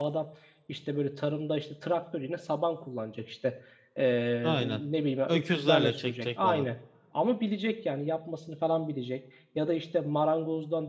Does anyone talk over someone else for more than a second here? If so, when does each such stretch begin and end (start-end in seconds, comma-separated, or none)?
5.3-6.6